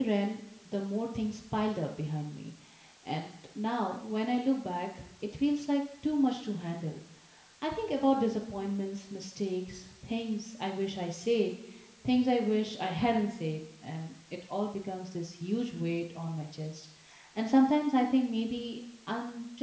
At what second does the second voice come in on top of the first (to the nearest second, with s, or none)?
none